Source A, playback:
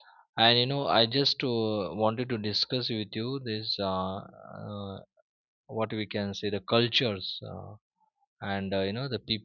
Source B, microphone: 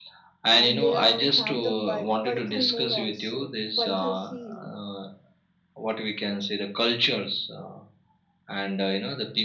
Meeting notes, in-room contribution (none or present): present